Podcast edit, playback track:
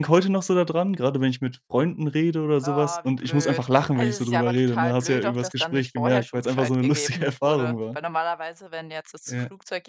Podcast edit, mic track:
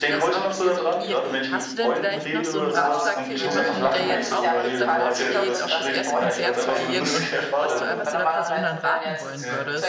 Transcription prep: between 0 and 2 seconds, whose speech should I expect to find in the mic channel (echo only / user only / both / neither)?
both